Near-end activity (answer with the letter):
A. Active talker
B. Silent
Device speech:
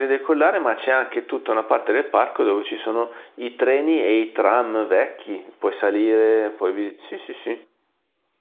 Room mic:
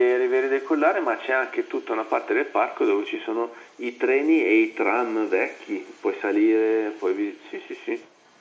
B